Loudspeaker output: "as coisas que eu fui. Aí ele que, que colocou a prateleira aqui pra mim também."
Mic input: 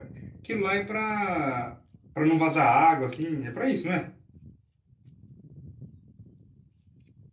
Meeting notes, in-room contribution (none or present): present